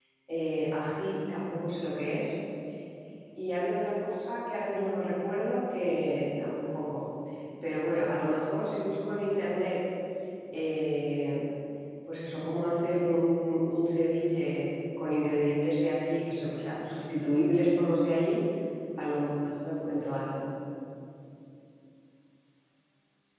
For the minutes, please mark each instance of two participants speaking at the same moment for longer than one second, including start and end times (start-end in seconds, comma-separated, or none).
none